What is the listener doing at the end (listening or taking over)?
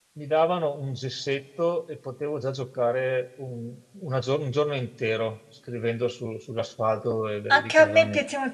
taking over